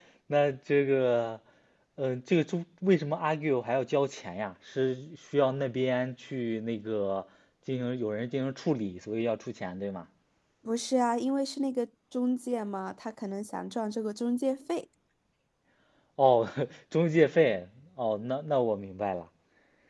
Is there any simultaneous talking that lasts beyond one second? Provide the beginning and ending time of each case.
none

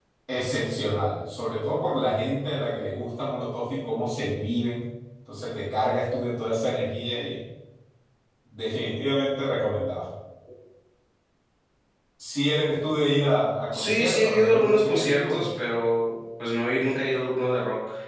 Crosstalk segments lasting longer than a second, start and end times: 13.7-15.5

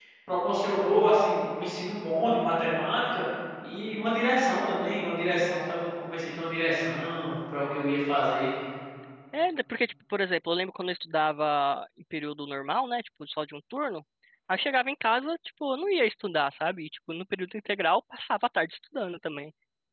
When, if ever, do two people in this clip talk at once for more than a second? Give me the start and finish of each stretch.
none

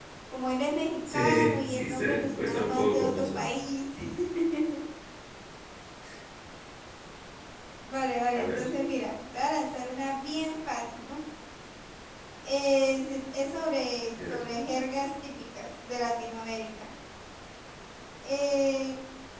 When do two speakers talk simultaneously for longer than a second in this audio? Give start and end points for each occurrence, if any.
1.1-3.6

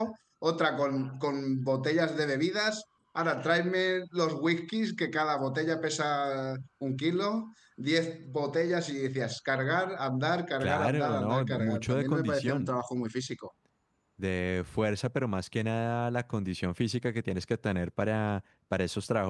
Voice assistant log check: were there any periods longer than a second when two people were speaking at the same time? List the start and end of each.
10.6-12.7

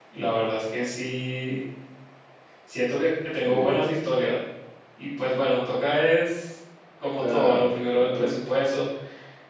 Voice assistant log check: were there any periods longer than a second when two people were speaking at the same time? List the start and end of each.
7.2-8.4

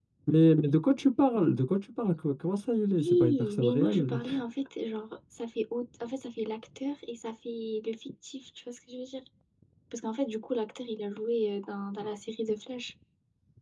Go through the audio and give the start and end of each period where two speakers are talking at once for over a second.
3.0-4.2

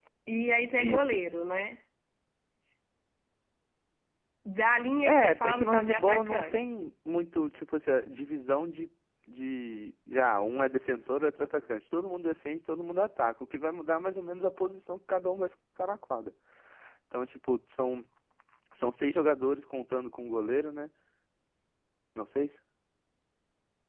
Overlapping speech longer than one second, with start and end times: 5.0-6.9

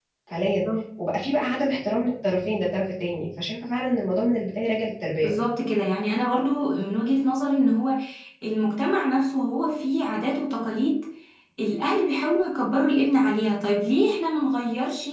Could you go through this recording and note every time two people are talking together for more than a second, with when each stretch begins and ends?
none

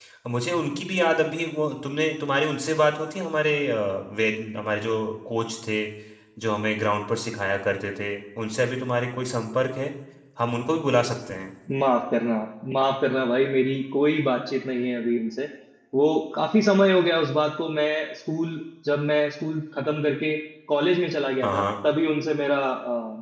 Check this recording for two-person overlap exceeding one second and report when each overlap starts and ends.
none

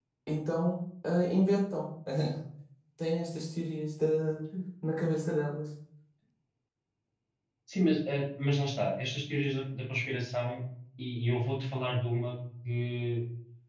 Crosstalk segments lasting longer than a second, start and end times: none

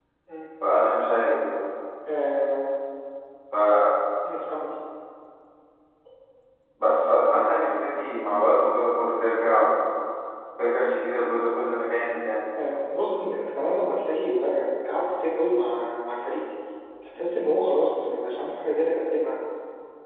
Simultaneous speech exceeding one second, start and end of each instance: none

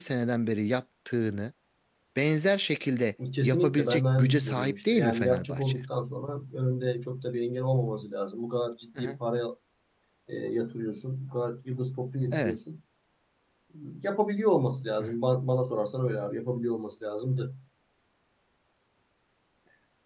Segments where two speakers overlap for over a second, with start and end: 3.4-5.8

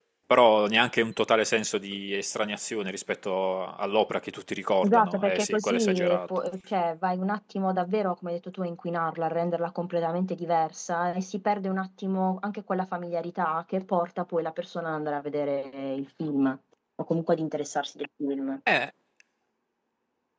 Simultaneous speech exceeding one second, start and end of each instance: 4.8-6.2

